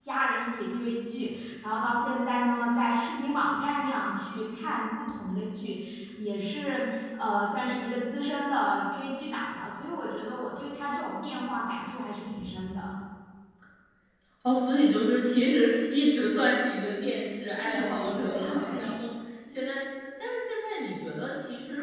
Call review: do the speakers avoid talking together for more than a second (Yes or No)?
No